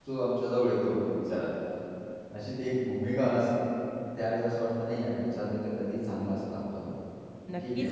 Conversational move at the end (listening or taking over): taking over